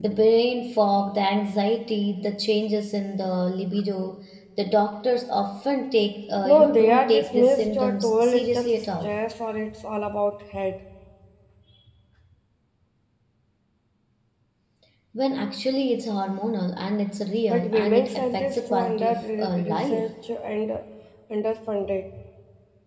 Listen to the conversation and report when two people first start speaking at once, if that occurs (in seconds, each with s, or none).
6.4 s